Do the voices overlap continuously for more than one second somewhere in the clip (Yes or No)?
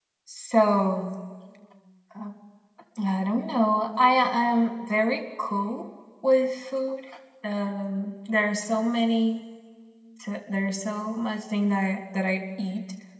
No